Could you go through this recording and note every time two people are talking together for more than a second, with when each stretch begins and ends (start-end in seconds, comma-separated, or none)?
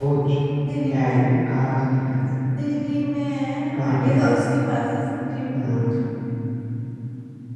none